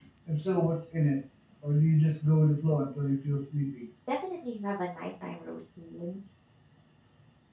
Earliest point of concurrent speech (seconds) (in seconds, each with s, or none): none